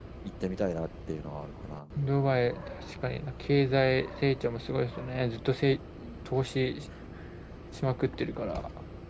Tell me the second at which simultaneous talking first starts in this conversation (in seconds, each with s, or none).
none